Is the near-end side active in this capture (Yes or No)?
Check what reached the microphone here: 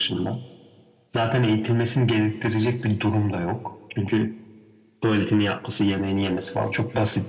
No